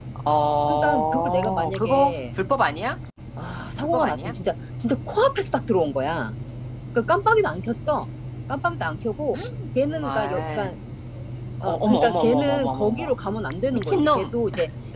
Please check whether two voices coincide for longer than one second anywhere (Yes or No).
Yes